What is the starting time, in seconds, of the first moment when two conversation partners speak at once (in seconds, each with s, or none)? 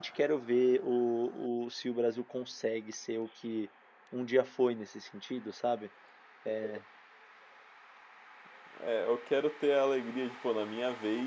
none